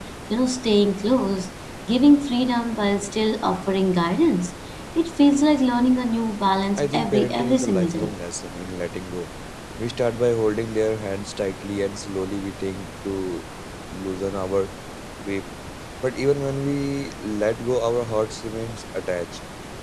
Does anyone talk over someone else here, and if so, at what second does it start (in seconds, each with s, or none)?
6.8 s